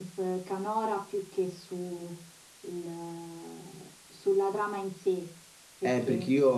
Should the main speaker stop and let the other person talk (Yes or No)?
Yes